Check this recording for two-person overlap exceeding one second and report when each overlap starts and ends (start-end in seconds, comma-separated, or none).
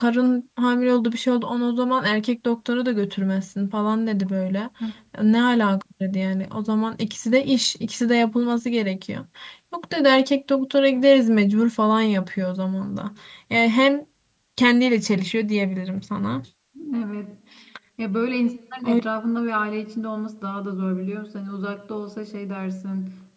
none